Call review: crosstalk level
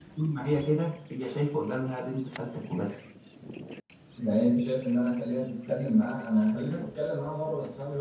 none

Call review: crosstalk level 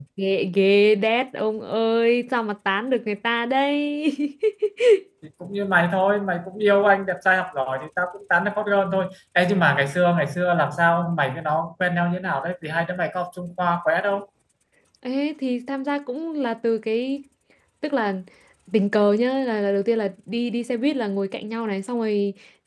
none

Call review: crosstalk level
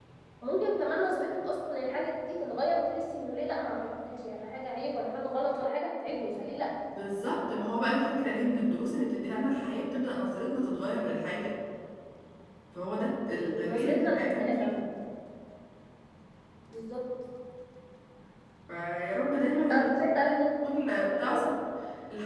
present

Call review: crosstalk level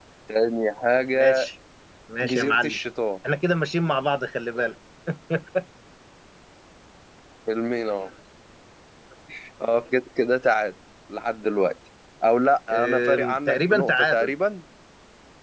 present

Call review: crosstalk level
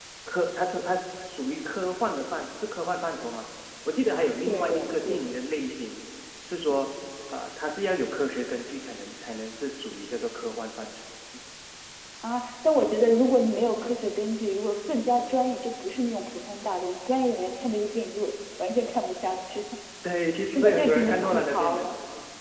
present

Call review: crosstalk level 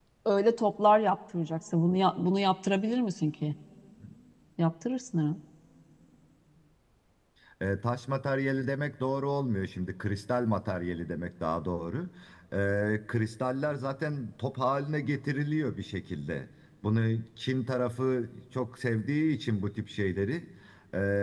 none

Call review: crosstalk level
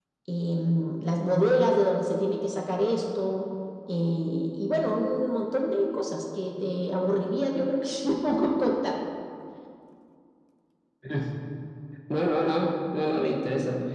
none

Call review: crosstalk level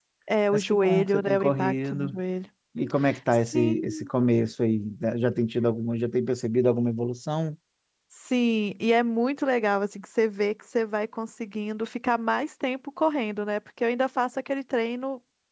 present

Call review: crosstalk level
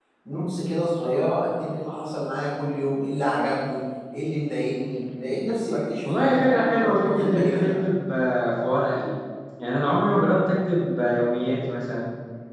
present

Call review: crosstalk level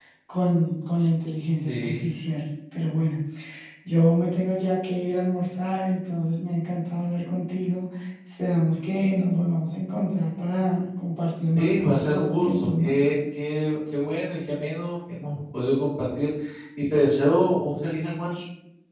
present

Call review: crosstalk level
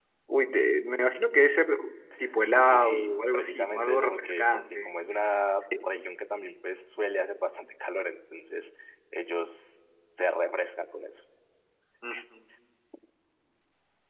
present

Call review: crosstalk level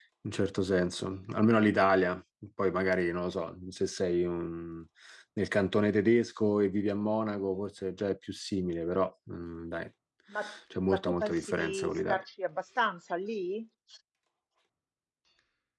present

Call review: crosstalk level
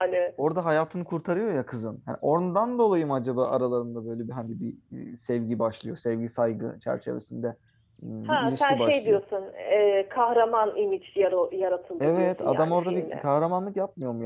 present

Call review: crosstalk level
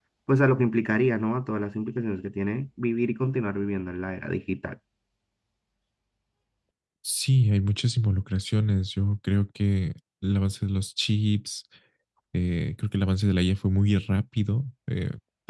none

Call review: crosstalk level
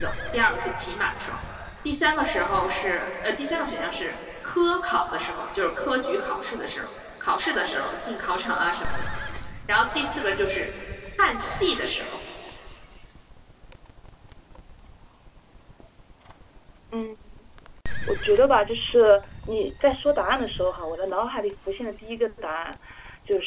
none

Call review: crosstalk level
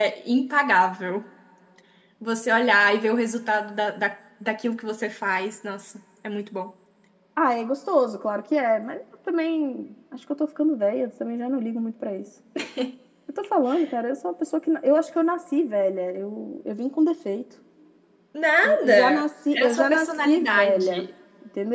present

